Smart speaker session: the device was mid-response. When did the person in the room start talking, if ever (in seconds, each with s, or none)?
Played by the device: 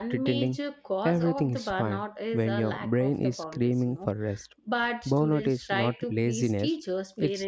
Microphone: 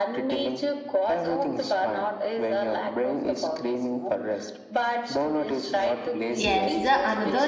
6.4 s